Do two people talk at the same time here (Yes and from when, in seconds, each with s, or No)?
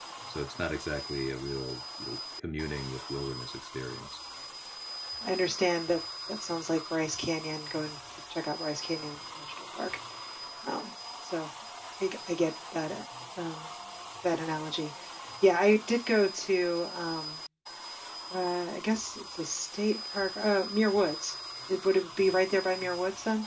No